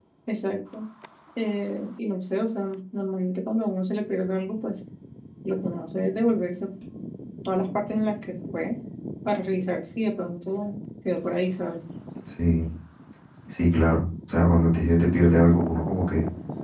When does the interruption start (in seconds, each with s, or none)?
none